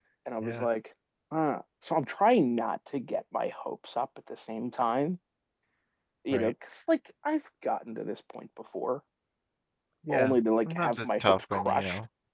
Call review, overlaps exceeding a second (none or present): present